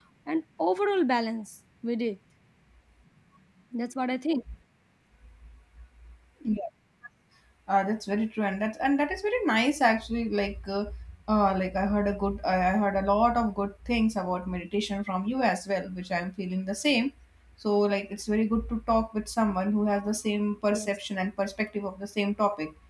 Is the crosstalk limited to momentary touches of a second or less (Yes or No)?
Yes